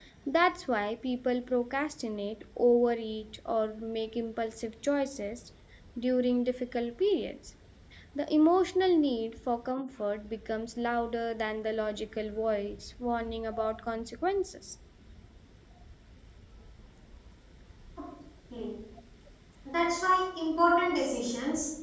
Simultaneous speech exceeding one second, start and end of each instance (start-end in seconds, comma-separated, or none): none